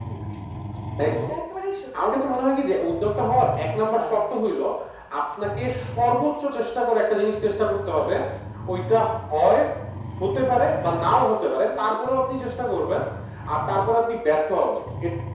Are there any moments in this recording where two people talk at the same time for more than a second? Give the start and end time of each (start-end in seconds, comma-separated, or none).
none